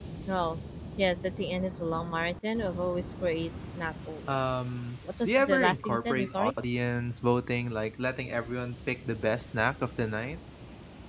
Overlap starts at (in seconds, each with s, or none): 5.2 s